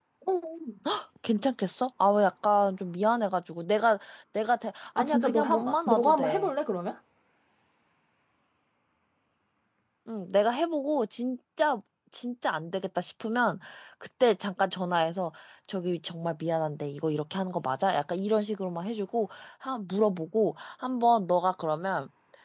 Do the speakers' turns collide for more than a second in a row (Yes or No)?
Yes